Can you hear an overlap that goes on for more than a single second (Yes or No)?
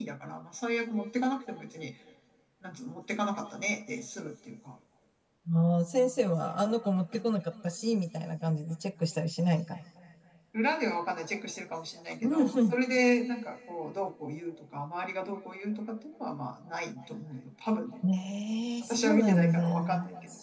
Yes